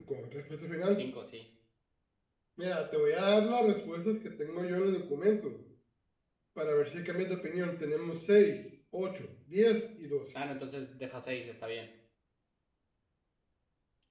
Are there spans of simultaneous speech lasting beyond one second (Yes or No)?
No